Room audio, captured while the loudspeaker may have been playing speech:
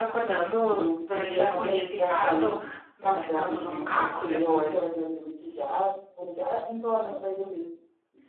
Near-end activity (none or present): present